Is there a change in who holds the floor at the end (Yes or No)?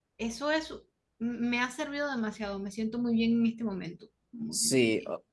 Yes